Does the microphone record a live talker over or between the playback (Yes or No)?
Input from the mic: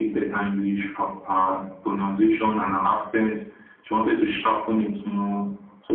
No